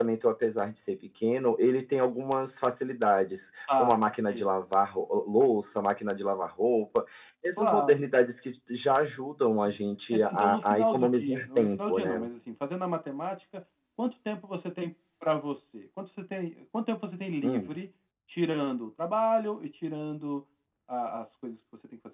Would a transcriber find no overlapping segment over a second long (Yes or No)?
No